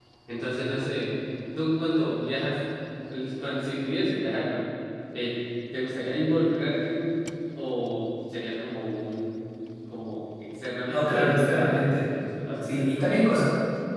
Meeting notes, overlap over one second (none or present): present